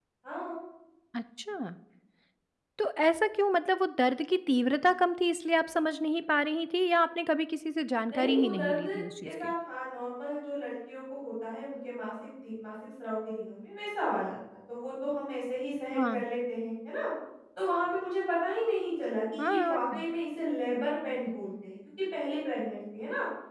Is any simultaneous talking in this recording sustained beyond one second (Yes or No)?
Yes